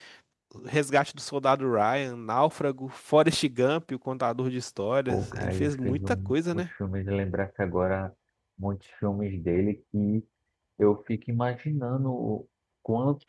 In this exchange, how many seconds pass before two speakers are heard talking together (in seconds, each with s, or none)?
5.1 s